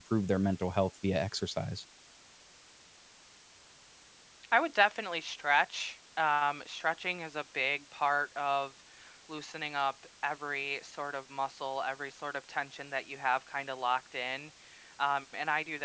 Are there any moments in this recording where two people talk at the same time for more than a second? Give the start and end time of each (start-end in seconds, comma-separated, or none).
none